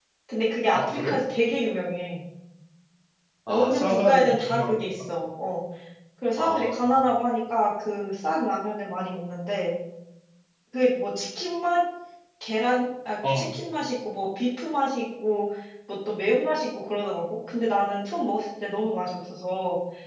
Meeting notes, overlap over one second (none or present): present